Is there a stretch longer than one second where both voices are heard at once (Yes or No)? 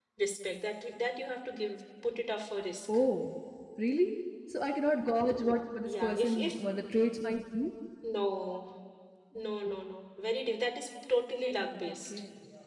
Yes